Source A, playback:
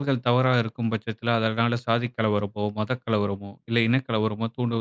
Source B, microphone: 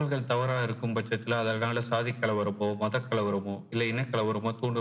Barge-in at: none

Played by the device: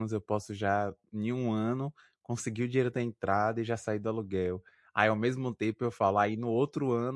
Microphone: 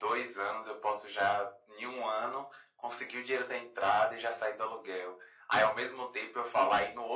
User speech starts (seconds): none

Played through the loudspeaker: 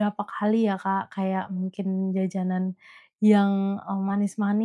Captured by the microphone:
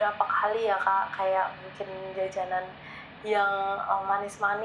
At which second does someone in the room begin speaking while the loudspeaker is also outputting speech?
none

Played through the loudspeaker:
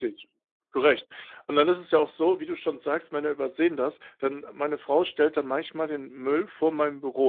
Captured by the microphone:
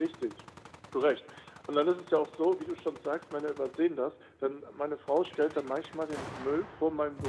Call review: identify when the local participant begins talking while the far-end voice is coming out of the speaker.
none

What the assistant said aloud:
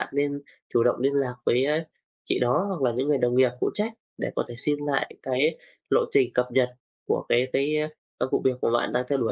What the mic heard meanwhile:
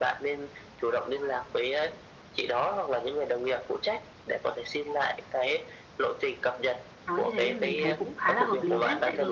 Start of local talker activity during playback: 7.1 s

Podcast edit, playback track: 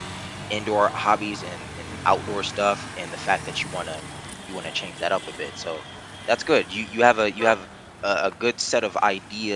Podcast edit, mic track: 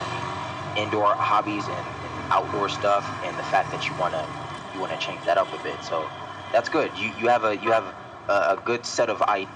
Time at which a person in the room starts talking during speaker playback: none

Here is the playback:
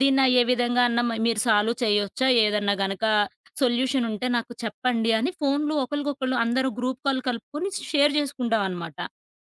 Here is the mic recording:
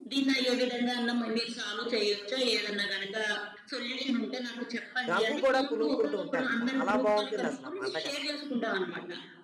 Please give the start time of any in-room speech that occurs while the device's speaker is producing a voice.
5.1 s

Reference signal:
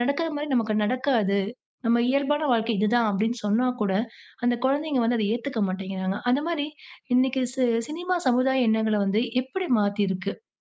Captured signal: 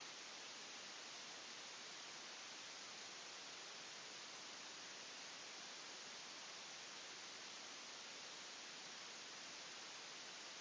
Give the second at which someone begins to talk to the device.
none

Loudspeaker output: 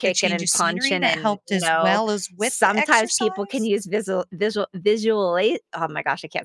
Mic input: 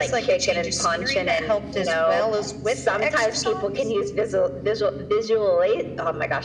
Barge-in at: none

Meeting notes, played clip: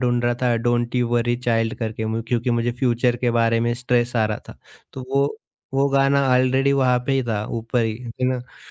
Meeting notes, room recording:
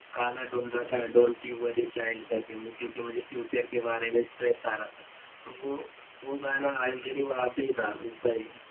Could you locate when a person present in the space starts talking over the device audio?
none

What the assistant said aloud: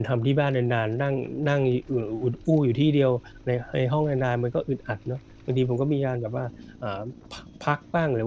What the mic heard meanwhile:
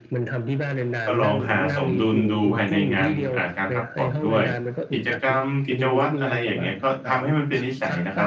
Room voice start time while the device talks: 1.0 s

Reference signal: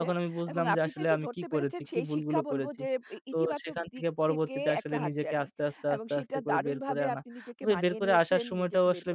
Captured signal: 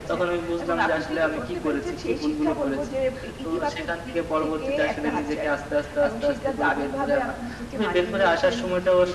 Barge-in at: none

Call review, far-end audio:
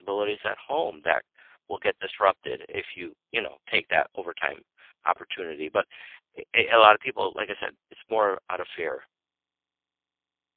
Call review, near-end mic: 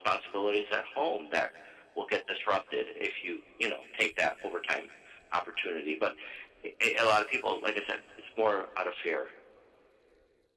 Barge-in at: none

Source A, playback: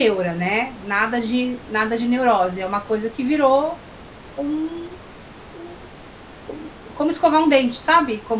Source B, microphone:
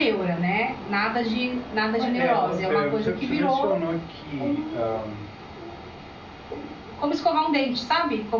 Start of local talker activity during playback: 1.9 s

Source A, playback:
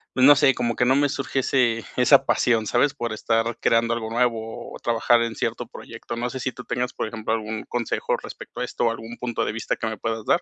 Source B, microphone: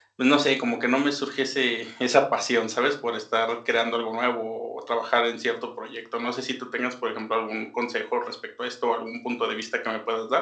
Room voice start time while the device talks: none

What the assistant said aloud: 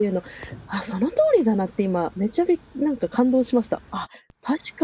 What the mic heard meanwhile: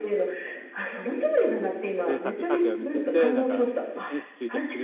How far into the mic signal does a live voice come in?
2.1 s

